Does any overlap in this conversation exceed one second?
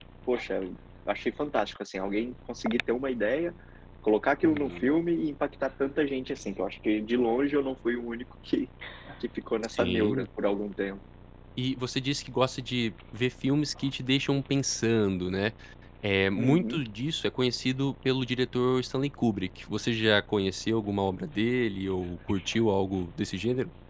No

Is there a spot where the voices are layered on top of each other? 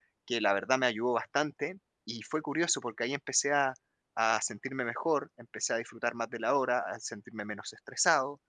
No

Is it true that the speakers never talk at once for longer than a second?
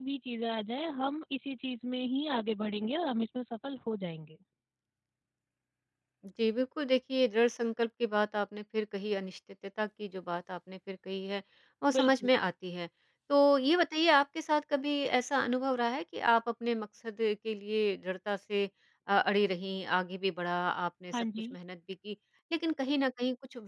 Yes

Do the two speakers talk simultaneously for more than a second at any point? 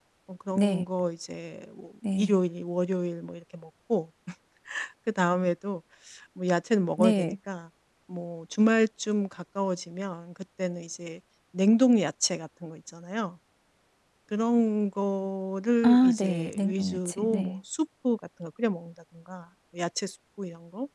Yes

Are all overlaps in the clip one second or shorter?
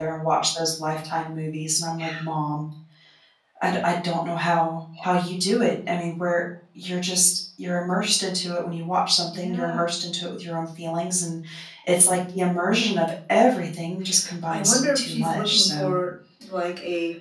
No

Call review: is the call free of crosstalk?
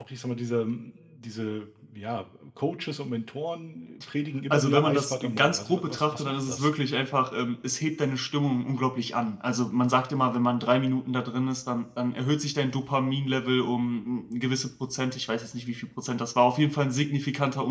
No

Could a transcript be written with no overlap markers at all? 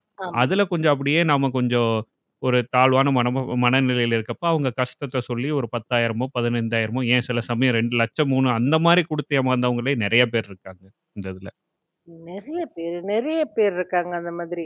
Yes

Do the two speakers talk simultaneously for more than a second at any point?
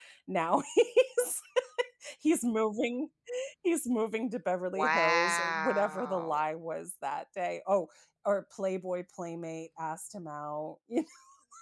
Yes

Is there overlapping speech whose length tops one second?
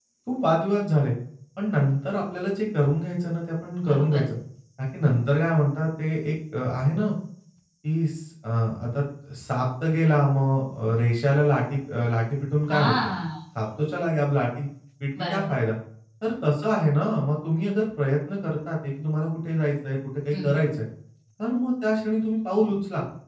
No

